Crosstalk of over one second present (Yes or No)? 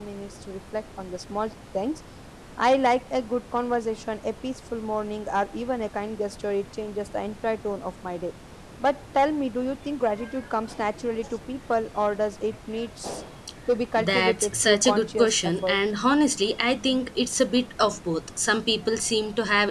Yes